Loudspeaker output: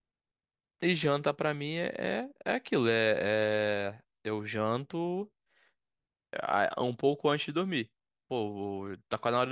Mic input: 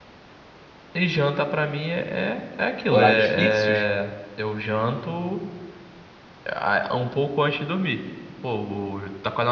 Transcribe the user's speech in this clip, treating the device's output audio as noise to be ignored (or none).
horários fixos,